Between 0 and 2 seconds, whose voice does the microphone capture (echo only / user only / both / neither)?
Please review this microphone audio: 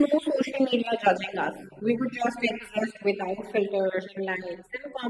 echo only